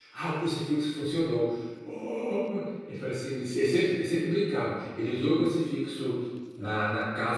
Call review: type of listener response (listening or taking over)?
listening